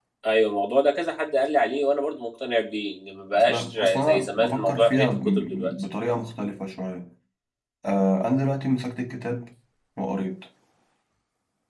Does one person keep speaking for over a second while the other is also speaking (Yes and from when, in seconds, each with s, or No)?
Yes, from 3.3 s